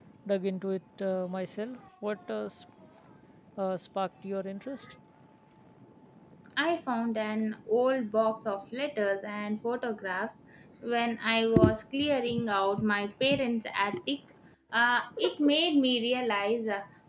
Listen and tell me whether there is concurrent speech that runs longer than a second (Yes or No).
No